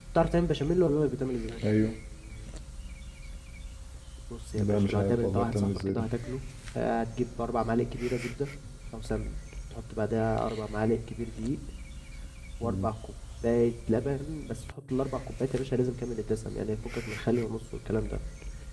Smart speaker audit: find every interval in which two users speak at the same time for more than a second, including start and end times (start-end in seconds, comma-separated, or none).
4.5-6.0